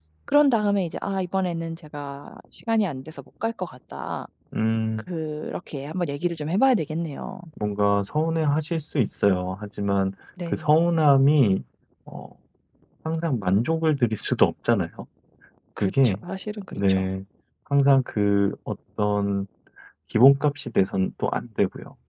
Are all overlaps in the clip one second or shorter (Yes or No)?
Yes